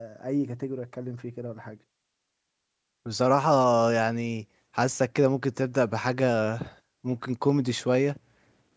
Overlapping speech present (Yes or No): No